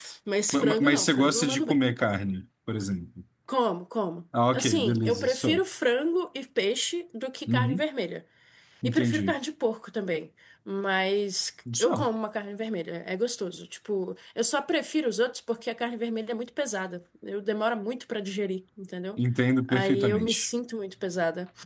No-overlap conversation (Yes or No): No